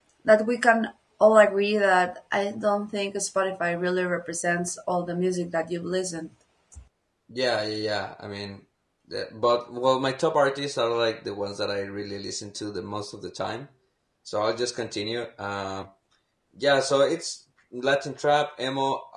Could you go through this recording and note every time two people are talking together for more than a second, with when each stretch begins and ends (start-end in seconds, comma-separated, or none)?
none